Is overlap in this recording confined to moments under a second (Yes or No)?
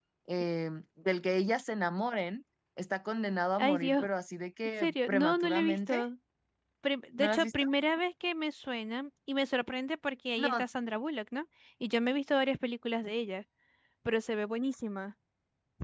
No